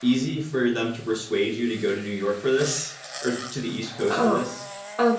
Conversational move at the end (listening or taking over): taking over